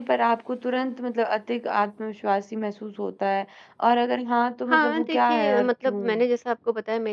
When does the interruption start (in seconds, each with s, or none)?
4.7 s